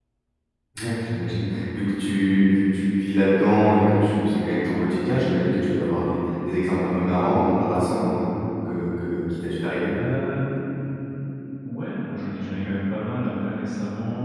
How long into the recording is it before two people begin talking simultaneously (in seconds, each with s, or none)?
none